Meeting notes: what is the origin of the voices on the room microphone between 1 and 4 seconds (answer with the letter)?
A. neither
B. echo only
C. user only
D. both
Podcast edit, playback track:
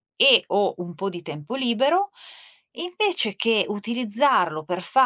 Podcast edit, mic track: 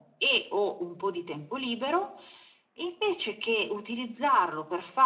B